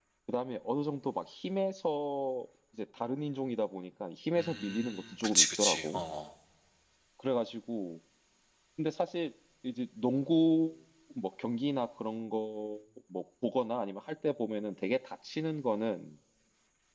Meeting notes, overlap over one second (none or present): present